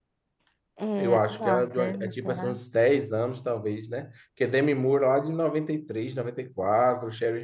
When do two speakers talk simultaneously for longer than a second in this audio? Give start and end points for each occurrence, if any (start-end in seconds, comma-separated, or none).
1.0-2.6